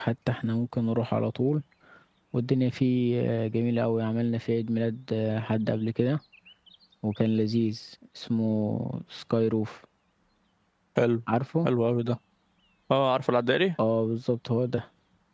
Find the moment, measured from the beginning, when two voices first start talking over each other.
none

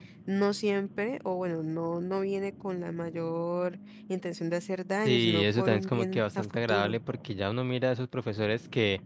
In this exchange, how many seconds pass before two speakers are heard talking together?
5 s

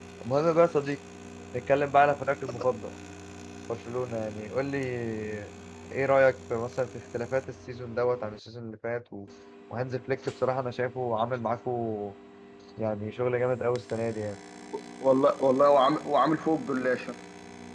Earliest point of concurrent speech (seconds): none

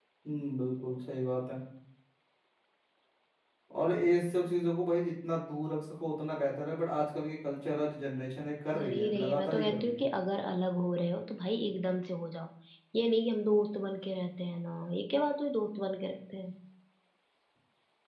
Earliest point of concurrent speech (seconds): 9 s

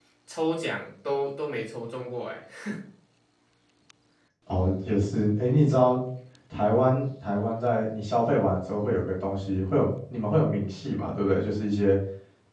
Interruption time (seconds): none

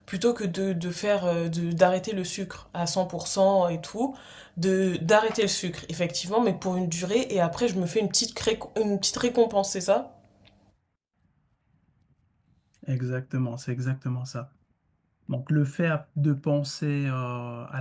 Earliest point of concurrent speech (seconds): none

